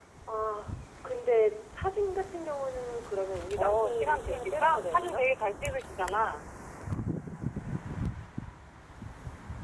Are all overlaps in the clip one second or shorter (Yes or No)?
No